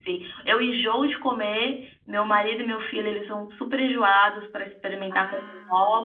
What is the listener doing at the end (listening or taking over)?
listening